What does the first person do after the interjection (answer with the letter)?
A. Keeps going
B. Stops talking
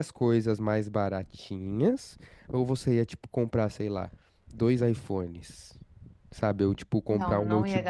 B